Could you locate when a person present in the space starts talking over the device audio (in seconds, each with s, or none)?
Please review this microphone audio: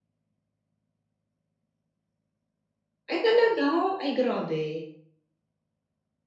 3.1 s